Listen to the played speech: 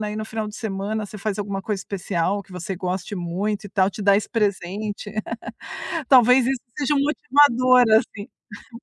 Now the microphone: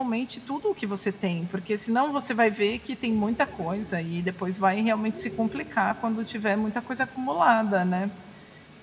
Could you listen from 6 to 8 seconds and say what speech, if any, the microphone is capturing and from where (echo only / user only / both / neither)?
user only